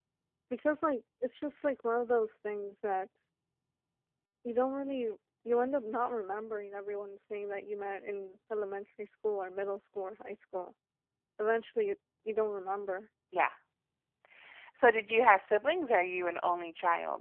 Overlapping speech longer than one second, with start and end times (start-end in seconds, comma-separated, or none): none